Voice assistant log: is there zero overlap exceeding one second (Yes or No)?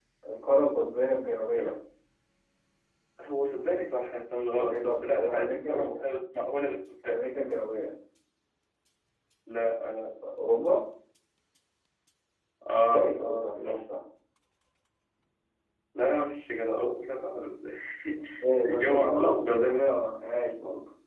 No